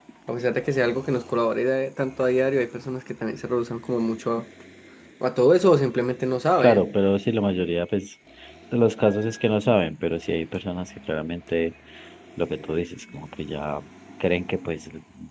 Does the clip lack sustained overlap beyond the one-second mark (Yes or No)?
Yes